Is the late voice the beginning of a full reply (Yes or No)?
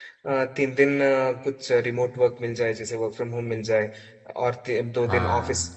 No